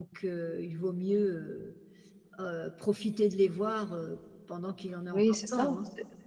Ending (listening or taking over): taking over